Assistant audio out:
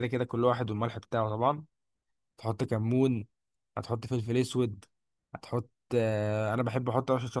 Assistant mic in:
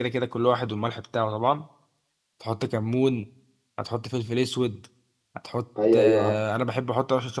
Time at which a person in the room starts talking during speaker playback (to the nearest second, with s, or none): 6 s